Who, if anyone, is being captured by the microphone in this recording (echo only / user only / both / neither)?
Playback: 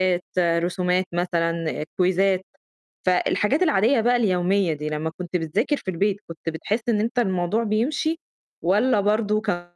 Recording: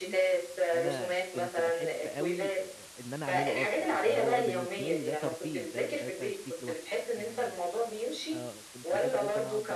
both